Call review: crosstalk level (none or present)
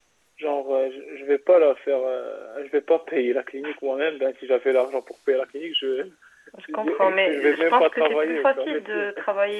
present